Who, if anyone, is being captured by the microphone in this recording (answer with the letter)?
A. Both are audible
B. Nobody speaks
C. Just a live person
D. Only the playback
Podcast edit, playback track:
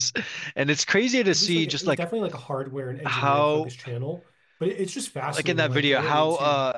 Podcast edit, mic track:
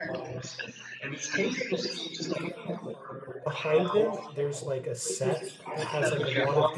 A